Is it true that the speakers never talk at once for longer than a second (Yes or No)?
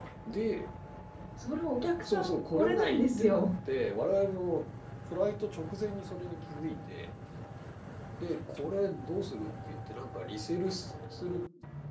No